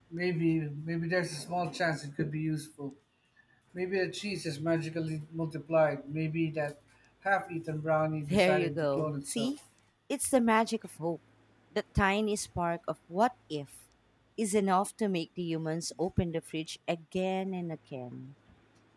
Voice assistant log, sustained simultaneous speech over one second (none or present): present